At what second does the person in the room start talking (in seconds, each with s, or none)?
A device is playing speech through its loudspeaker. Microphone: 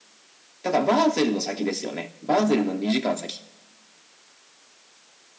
none